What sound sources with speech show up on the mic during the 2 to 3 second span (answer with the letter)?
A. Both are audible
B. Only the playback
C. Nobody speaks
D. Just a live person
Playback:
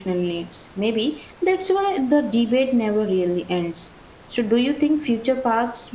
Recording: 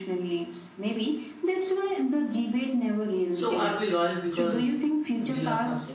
B